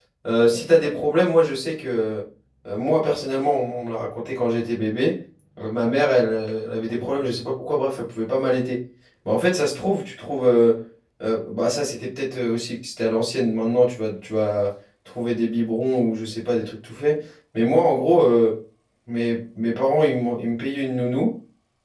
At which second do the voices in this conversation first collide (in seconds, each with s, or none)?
none